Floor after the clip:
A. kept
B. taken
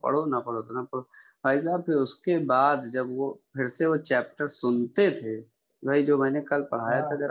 A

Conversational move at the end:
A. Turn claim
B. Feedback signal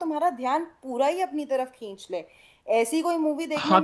A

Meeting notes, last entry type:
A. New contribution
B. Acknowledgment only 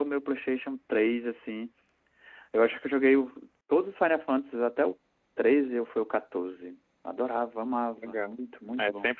A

